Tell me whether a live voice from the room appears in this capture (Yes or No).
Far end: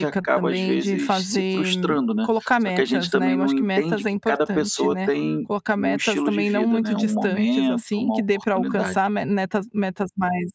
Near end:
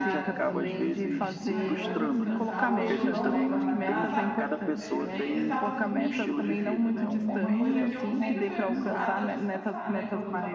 Yes